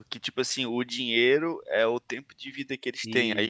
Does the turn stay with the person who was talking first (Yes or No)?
Yes